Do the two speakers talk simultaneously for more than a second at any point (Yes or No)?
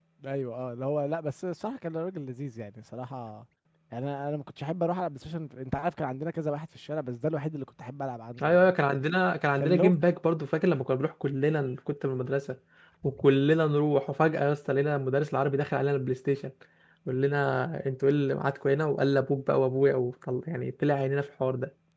No